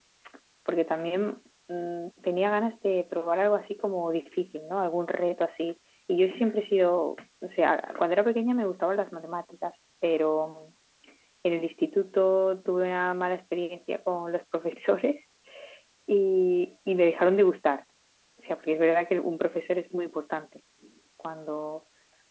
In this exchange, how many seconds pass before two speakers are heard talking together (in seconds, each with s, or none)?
none